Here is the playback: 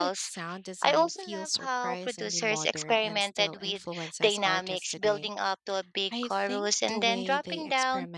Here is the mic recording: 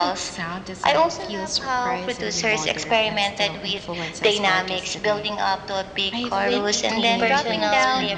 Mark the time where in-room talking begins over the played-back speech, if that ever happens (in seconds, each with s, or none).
6.3 s